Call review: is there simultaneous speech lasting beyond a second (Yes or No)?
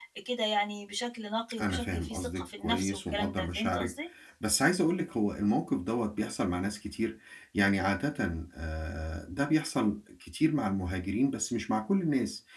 Yes